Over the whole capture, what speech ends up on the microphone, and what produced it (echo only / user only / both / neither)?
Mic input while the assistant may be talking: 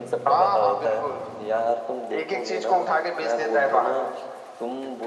echo only